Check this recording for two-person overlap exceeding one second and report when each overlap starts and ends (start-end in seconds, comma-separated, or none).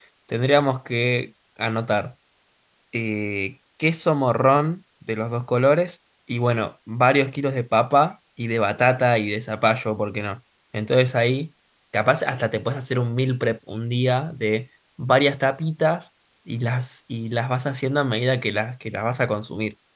none